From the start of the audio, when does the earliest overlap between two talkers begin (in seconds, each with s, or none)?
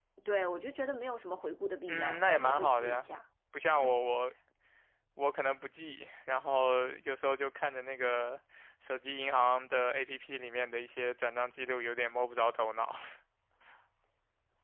1.9 s